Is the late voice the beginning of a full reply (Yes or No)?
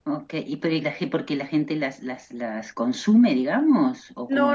Yes